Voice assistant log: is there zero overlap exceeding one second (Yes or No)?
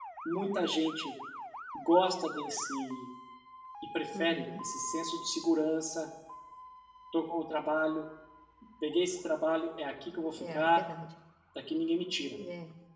Yes